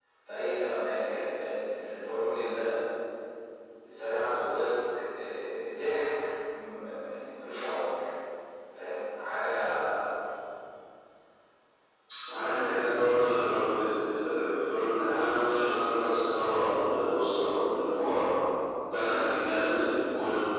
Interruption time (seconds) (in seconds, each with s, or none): none